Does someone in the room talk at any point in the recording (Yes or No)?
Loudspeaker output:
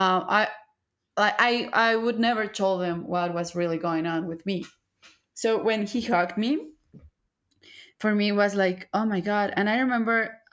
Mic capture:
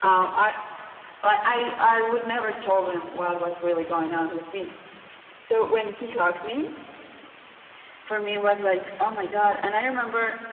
No